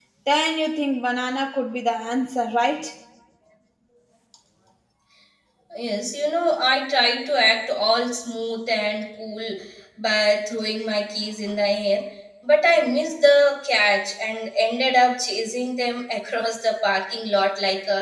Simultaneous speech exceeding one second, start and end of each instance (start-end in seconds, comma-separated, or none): none